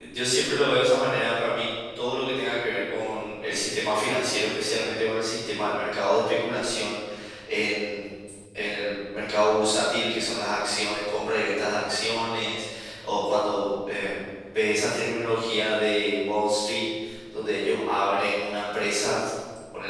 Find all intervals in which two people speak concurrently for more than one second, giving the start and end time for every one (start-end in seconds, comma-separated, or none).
none